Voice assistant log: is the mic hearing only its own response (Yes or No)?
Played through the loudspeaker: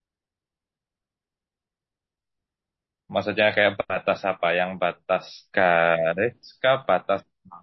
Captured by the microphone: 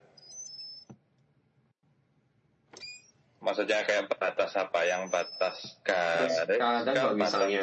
No